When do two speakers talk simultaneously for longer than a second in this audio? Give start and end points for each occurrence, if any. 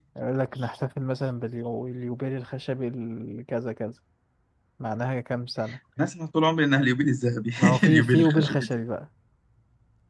7.6-8.8

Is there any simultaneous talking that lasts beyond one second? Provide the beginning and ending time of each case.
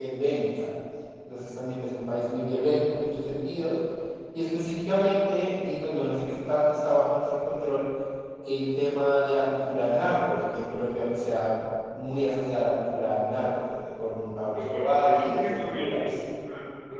14.6-16.0

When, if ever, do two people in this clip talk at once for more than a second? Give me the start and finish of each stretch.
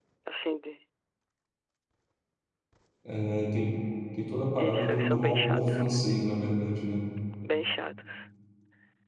4.6-6.1

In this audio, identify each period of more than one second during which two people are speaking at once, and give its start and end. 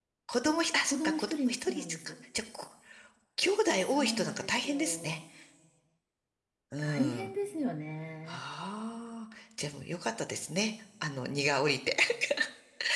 0.9-2.1, 3.8-5.1

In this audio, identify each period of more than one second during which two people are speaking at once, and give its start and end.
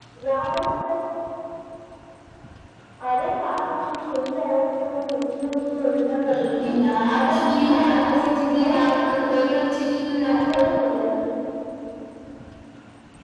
7.2-9.6

